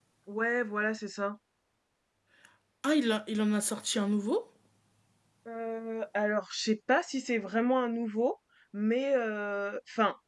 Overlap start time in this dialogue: none

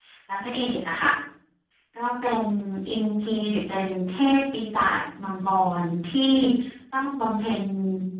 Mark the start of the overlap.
none

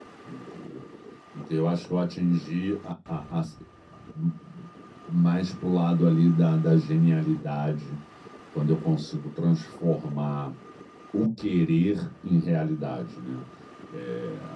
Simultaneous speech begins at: none

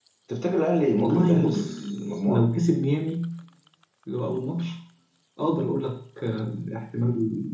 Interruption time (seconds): 1.0 s

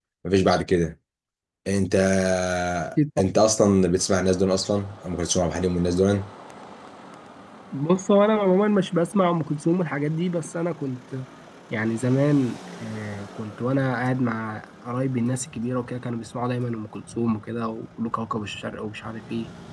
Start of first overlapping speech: none

